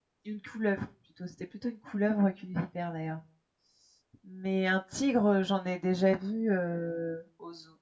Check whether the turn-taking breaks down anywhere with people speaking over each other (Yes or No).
No